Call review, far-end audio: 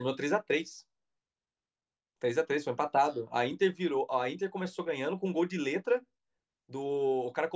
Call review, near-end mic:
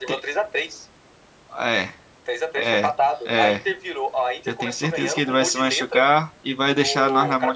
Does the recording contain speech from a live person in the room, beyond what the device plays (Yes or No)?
Yes